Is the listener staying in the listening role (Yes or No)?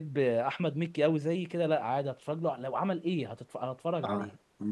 No